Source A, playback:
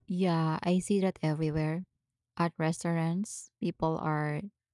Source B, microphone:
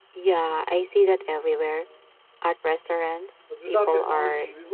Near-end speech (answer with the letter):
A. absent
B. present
B